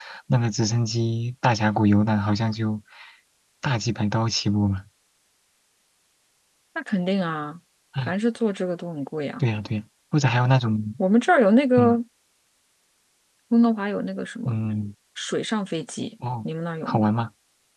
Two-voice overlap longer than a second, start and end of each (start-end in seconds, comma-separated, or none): none